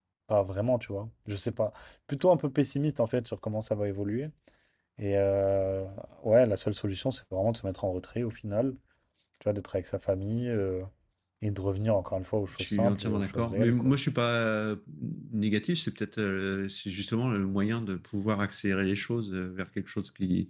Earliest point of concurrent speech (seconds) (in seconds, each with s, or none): 12.5 s